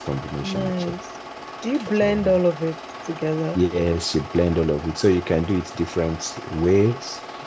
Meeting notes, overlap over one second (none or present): none